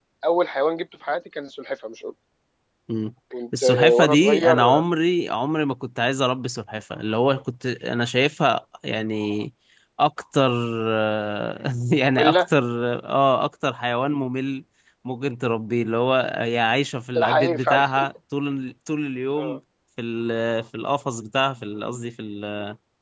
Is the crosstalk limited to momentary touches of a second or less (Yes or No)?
No